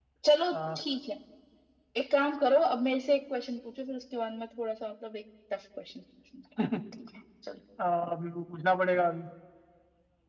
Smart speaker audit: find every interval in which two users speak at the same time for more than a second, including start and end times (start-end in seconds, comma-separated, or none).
none